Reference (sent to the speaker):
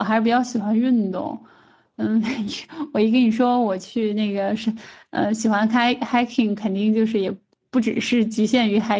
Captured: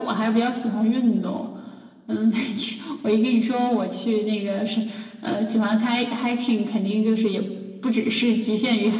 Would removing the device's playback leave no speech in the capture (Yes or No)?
Yes